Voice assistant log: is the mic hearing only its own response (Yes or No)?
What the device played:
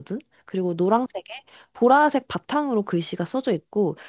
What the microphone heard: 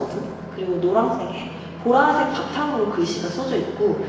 Yes